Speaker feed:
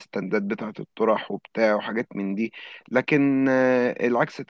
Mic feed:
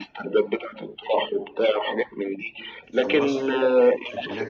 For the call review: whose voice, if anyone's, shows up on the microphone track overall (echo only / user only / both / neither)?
both